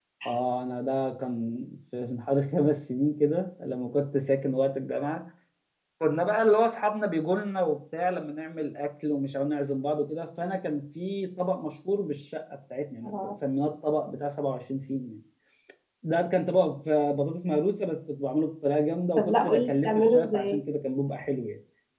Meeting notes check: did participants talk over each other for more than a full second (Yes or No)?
Yes